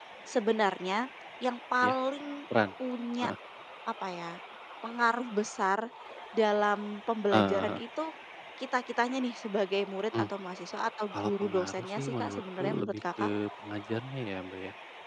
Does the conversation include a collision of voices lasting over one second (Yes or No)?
Yes